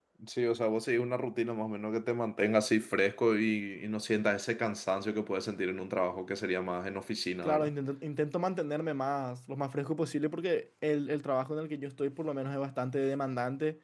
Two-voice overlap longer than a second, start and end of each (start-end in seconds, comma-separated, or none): none